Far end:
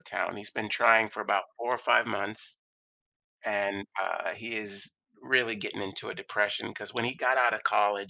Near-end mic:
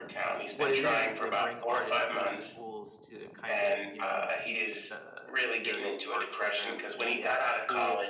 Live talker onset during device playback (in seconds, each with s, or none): 0.5 s